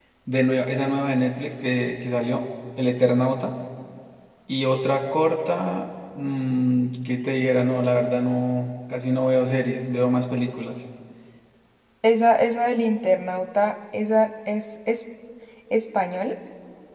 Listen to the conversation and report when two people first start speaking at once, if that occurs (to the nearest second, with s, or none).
none